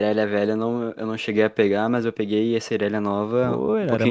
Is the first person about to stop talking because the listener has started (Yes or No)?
Yes